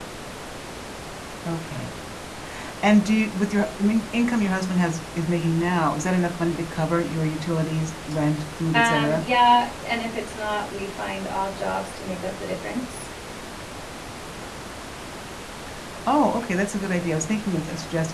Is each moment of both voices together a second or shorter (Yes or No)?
Yes